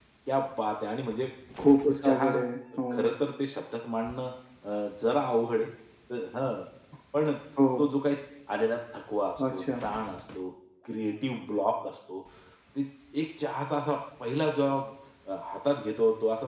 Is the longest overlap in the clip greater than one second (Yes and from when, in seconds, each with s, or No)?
No